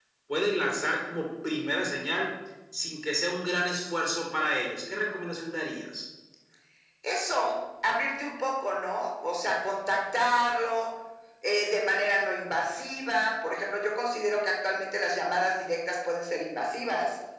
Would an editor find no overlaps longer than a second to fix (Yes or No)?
Yes